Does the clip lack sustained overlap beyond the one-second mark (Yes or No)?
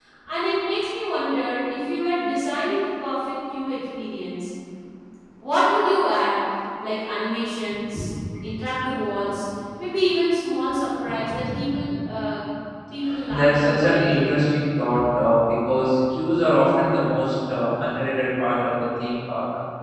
No